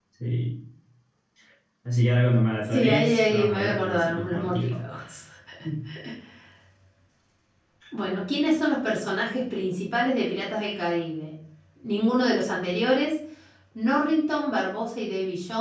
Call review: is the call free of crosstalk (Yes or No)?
No